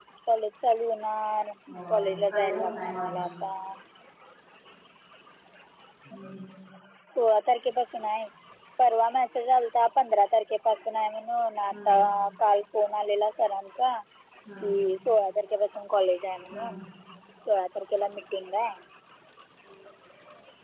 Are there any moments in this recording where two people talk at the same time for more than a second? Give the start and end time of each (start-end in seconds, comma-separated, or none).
1.7-3.2